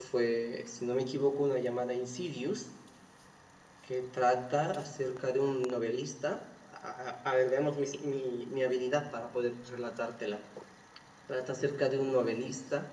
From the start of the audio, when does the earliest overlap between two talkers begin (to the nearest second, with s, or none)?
none